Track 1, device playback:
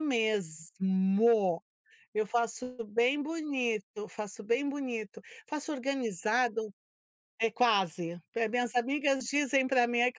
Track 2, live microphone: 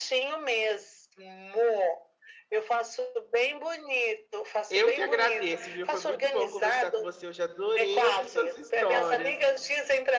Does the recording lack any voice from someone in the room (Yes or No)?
No